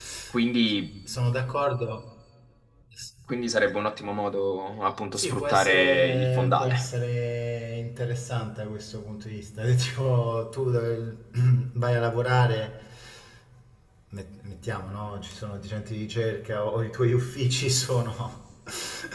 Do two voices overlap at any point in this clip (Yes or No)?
Yes